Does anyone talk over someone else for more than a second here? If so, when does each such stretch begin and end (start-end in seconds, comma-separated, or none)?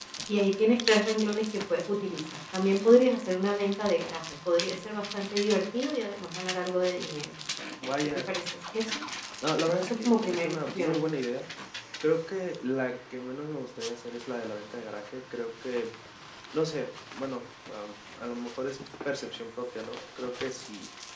9.8-11.0